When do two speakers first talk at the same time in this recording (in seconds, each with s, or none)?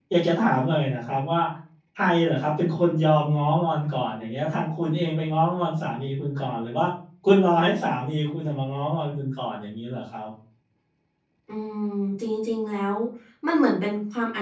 none